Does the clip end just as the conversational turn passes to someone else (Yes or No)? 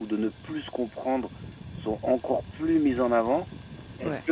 No